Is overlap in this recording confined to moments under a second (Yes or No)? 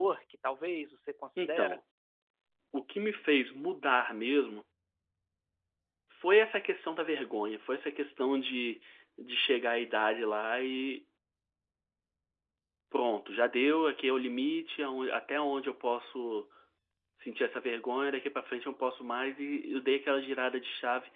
Yes